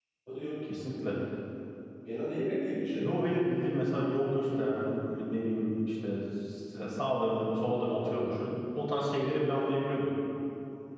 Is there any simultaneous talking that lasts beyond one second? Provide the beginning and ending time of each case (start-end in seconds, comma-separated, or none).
none